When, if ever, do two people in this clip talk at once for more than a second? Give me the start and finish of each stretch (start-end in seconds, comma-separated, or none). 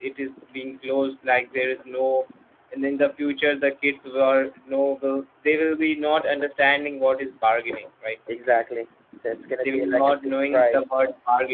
9.6-10.8